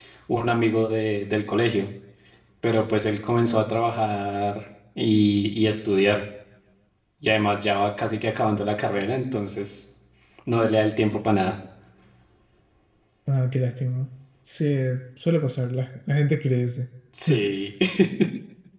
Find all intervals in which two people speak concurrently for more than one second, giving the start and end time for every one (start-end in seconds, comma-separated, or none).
none